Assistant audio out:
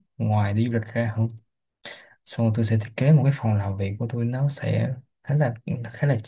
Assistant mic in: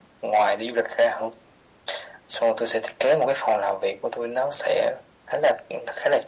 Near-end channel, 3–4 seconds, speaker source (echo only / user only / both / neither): echo only